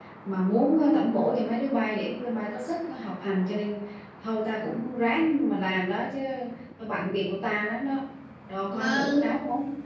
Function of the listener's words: taking over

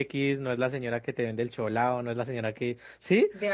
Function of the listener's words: listening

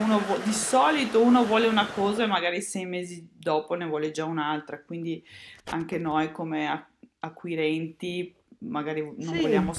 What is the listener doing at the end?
listening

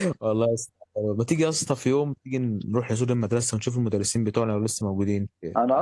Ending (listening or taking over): taking over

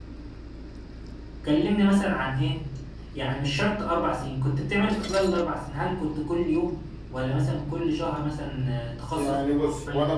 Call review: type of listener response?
taking over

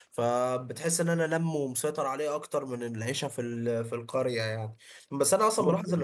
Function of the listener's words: listening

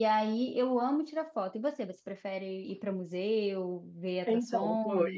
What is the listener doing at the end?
taking over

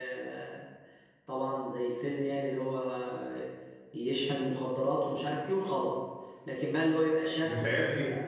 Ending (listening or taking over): listening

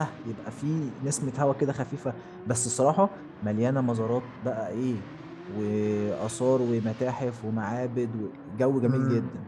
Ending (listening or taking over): taking over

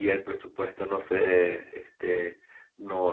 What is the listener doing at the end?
listening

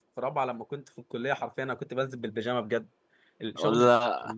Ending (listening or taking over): listening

